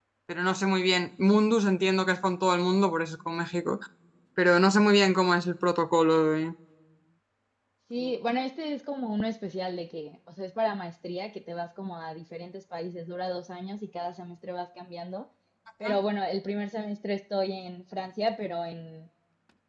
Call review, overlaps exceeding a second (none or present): none